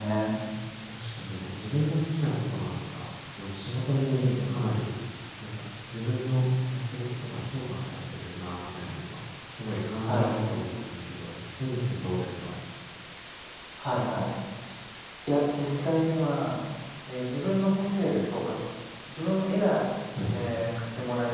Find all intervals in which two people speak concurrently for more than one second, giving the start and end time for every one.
none

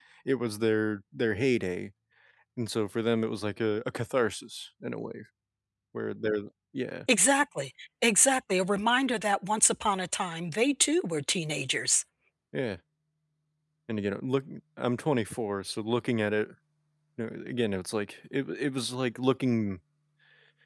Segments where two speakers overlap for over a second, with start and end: none

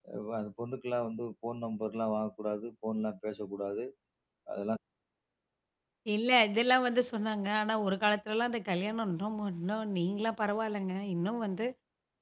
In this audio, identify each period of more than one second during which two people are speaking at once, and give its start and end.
none

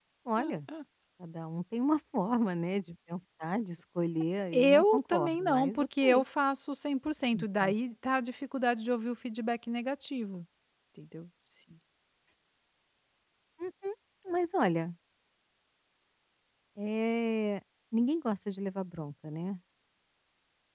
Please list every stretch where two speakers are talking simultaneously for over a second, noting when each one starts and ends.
4.5-6.2

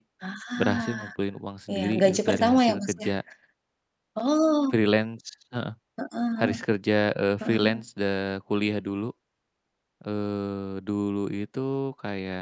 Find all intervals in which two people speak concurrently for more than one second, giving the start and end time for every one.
1.7-3.1

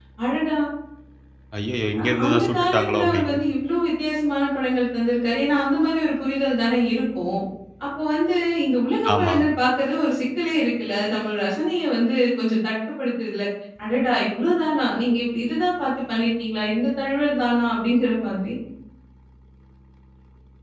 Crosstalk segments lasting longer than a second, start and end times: 2.0-3.4

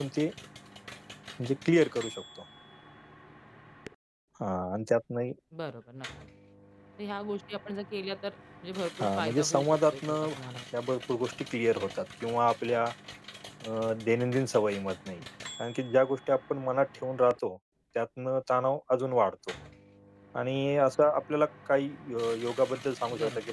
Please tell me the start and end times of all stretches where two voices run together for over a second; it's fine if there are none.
9.0-10.3

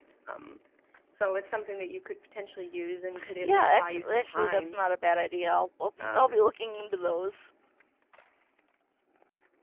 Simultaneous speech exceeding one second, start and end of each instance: 3.4-4.8

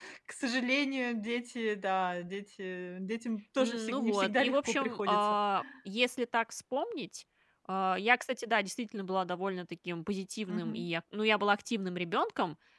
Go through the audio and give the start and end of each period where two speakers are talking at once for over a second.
3.6-5.3

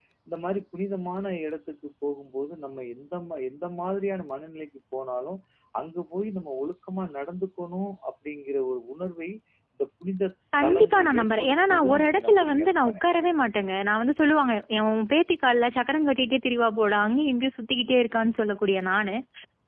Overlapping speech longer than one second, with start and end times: 10.6-12.9

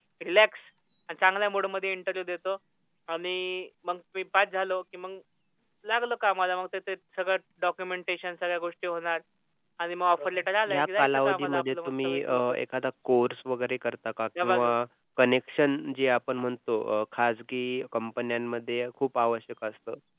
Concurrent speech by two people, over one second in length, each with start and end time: 10.2-12.6

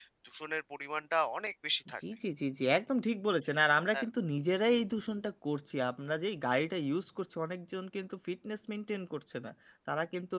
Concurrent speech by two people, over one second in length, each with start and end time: none

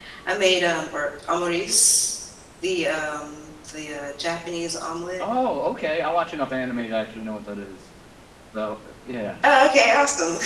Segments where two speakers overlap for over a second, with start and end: none

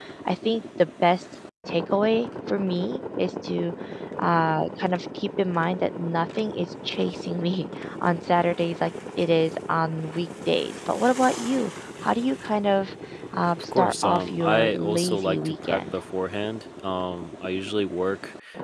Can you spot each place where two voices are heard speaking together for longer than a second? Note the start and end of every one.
13.8-15.8

